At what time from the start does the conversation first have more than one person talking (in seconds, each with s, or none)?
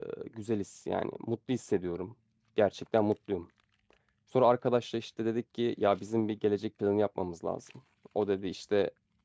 none